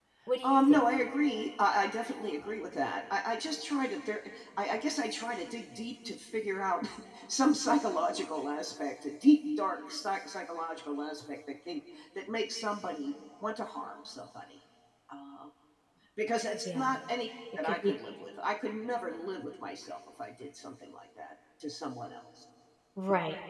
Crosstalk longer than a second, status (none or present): none